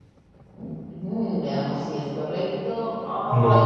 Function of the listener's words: listening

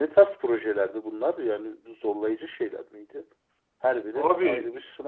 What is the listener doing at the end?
taking over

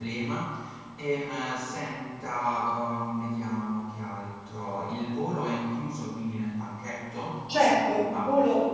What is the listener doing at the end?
taking over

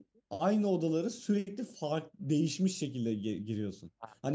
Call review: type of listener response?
listening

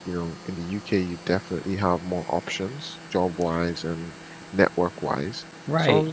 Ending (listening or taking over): taking over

